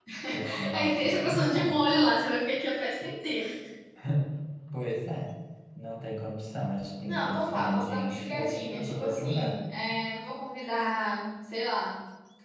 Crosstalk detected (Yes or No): Yes